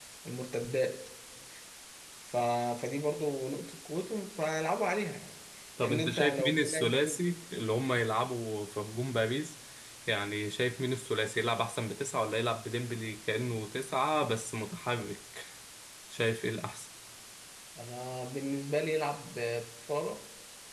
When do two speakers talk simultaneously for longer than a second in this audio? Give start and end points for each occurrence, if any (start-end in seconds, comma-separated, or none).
5.8-7.2